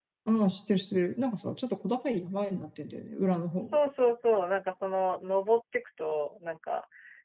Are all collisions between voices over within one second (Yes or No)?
Yes